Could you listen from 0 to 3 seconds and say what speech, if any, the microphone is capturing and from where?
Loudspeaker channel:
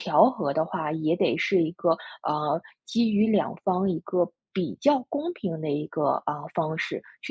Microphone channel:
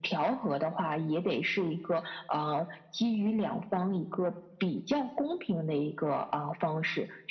echo only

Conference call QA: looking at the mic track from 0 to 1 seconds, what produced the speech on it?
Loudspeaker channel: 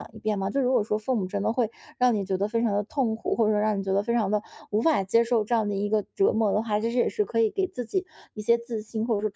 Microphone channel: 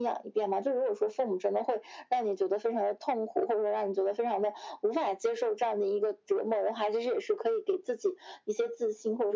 echo only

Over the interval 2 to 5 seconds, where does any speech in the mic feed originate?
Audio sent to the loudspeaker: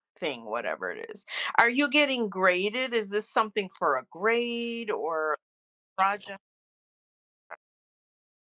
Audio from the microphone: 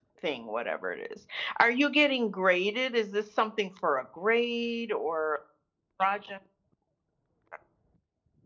echo only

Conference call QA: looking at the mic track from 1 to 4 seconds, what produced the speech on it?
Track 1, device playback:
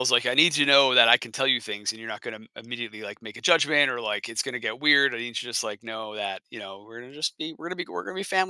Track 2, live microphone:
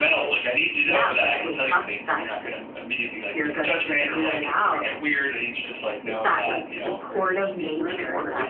both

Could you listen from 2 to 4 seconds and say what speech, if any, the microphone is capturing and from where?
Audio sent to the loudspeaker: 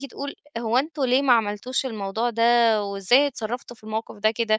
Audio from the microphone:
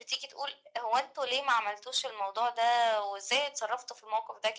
echo only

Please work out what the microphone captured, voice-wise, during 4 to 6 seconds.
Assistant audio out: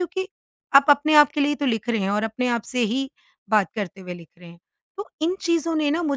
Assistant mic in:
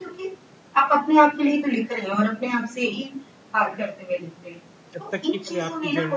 both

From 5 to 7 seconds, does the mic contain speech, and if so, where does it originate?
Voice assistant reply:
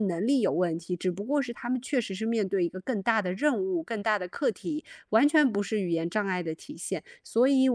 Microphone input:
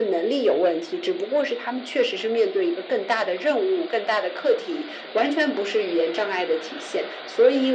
echo only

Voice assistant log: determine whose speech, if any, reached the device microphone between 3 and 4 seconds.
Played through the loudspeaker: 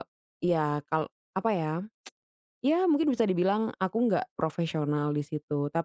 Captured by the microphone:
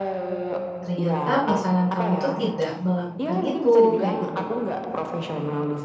both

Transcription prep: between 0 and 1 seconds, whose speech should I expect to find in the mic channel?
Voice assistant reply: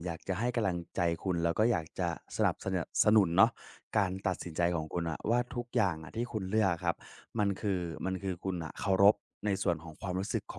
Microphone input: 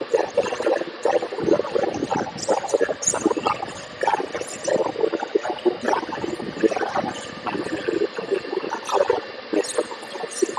echo only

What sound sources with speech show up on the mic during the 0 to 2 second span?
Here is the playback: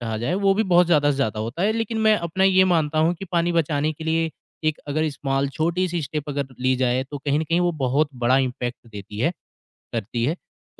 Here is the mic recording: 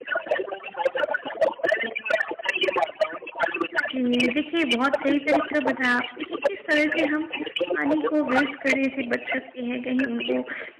echo only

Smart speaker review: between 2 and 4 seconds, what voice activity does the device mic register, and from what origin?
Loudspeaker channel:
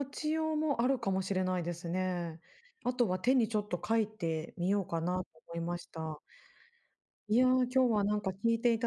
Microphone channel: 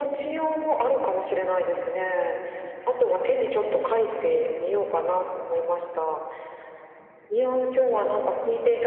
echo only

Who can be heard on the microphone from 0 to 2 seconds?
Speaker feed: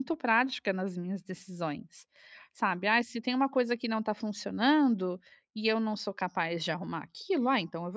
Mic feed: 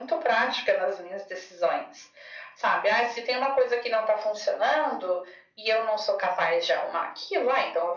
echo only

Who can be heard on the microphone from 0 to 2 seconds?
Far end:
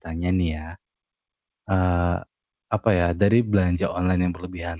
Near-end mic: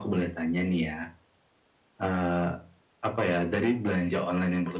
echo only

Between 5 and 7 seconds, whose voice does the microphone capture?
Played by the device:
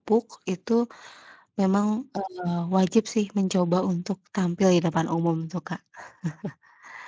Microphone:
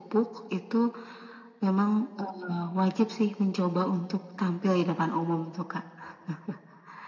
echo only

